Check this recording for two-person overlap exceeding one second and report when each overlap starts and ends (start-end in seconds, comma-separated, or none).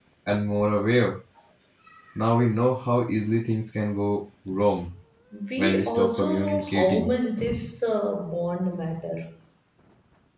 5.6-7.2